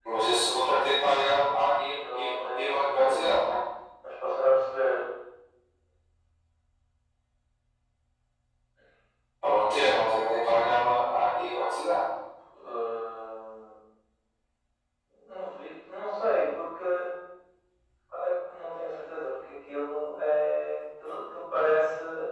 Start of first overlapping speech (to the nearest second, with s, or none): 2 s